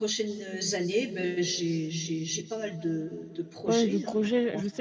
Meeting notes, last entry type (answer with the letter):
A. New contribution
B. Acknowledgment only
A